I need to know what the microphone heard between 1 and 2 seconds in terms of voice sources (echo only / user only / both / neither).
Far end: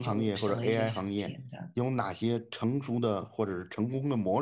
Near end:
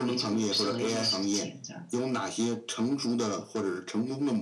echo only